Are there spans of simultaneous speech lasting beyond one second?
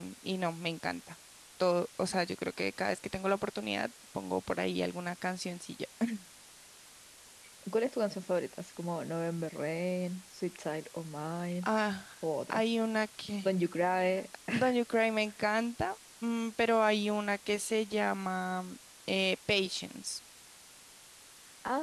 No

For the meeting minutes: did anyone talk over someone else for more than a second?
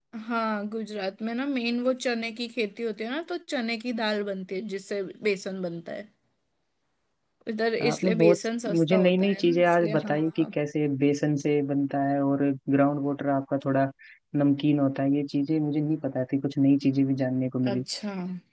Yes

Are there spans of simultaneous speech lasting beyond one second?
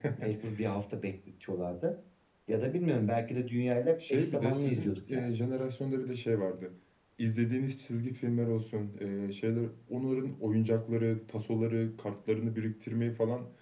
Yes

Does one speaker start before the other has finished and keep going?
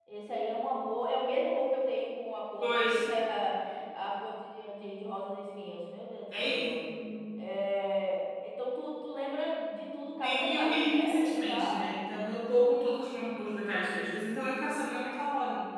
Yes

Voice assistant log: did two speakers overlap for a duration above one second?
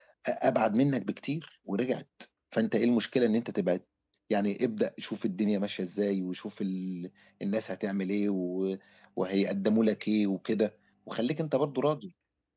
No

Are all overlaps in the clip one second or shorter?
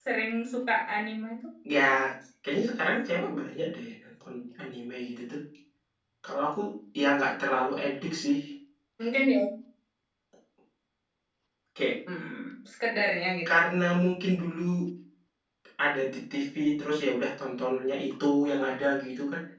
Yes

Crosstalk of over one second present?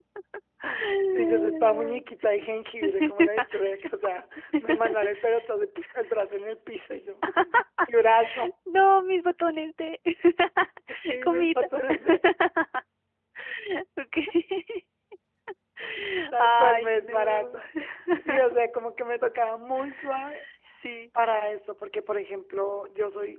Yes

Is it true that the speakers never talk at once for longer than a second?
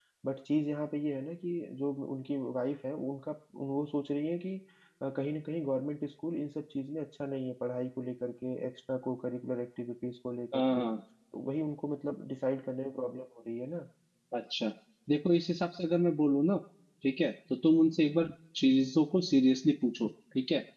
Yes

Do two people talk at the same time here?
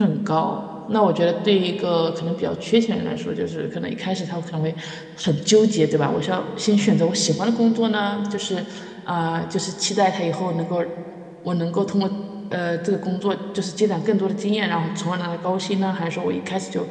No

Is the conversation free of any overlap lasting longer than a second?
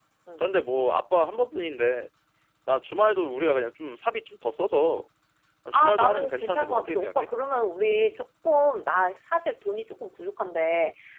No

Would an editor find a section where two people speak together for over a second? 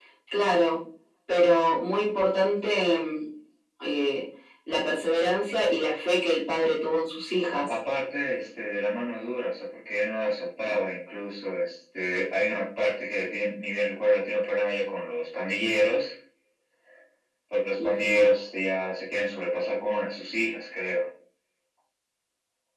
No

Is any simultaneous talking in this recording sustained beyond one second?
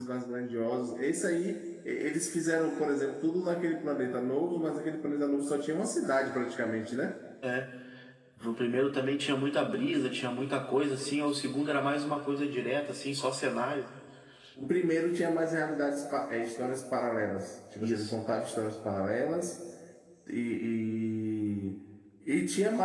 No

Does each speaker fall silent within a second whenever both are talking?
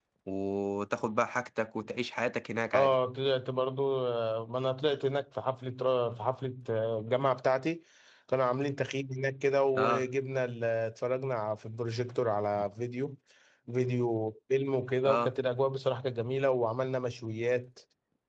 Yes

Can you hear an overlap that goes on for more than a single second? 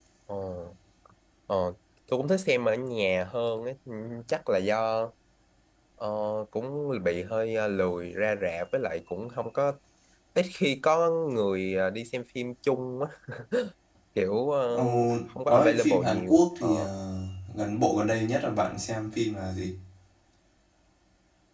Yes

